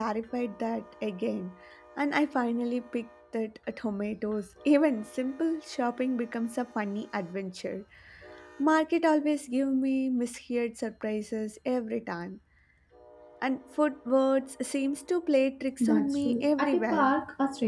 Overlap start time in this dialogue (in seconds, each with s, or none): 15.8 s